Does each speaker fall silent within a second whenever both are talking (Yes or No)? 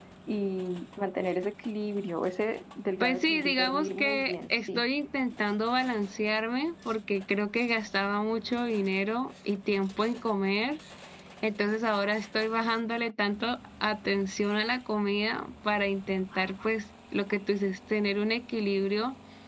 No